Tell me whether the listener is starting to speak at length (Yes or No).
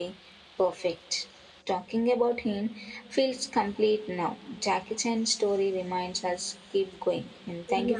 Yes